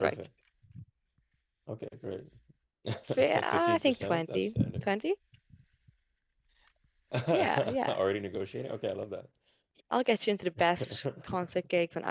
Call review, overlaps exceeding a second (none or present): present